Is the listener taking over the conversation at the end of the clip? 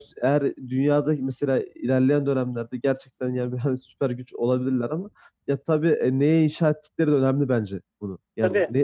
No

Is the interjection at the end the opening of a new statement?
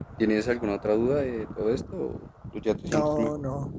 Yes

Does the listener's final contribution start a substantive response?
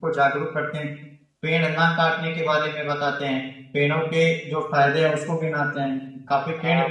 Yes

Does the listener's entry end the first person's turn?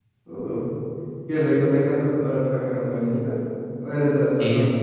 No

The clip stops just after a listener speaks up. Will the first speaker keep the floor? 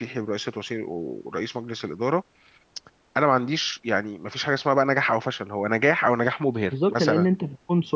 No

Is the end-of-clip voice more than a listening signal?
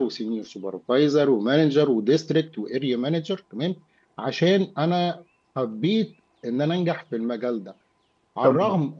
No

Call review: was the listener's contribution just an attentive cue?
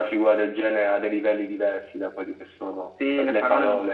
No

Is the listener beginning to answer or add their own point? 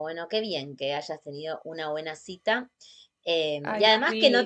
No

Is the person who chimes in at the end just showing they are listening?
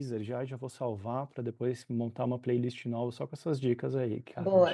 No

